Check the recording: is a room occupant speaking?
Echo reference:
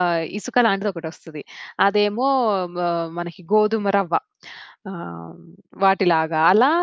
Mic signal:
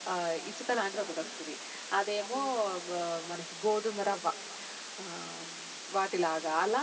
No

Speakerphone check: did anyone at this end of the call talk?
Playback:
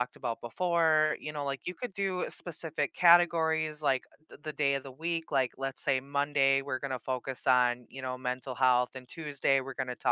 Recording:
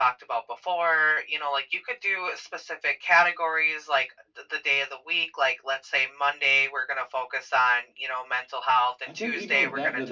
Yes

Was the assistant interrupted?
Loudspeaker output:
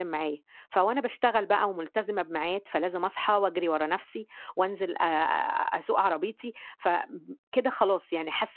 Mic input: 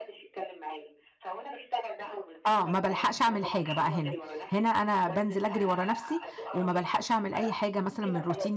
Yes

